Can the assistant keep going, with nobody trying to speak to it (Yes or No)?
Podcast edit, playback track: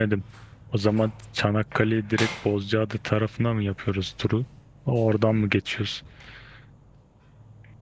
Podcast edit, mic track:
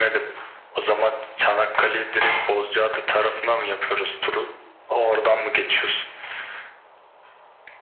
Yes